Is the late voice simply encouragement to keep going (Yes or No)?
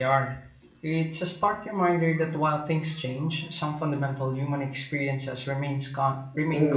No